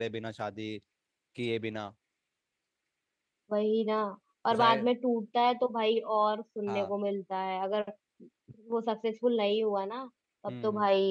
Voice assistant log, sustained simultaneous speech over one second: none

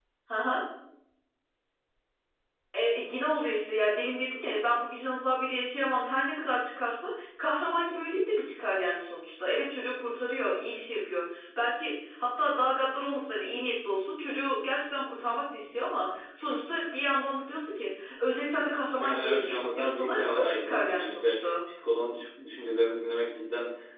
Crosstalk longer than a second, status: present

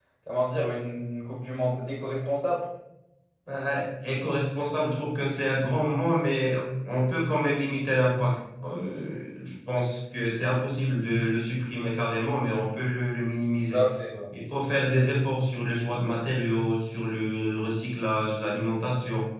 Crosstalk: none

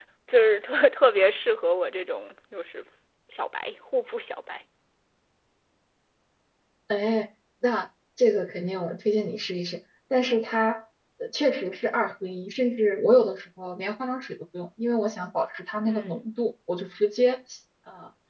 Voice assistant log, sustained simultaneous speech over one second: none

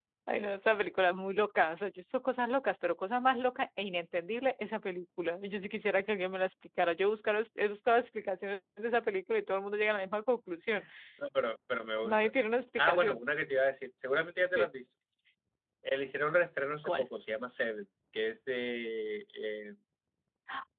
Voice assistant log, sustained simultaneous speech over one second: none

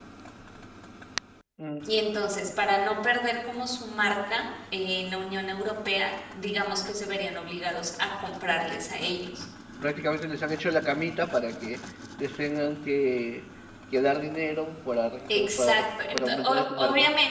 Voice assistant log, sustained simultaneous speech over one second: present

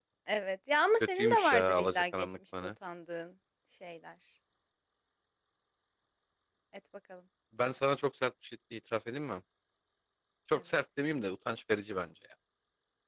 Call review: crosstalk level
present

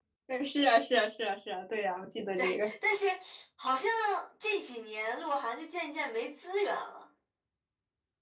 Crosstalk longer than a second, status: none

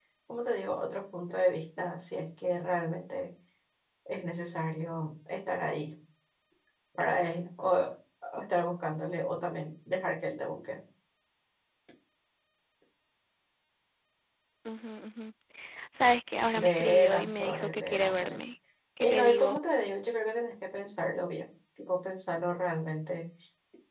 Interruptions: present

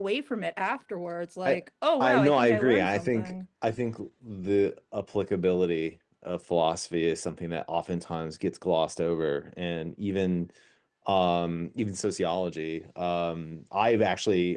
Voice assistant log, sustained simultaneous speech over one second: present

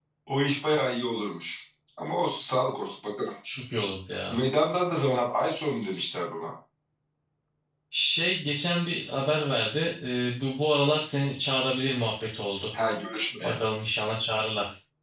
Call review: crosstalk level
none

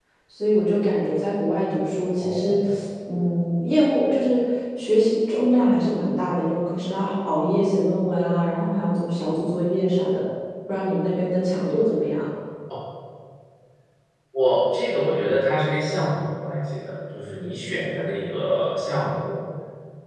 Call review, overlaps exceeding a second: none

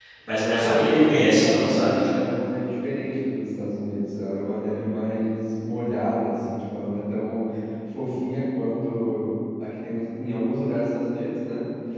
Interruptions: present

